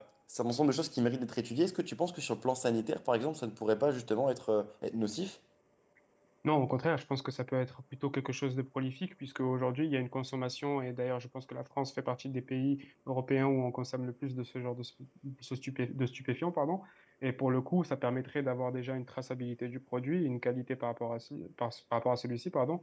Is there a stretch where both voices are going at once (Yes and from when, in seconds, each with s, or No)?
No